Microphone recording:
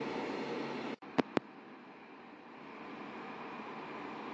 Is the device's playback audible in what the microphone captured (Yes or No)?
No